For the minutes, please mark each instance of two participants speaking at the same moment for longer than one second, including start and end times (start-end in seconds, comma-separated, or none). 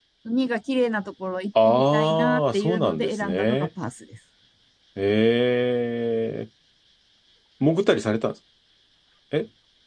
1.6-3.7